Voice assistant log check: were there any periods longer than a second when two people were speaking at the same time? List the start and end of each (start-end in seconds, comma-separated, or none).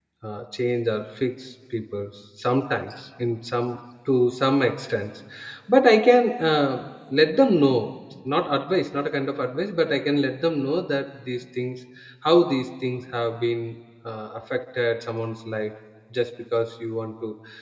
none